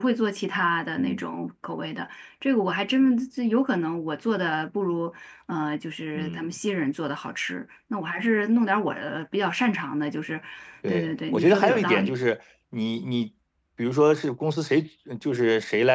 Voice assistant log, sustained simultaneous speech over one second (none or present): present